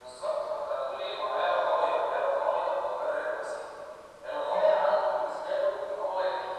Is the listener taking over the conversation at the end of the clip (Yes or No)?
Yes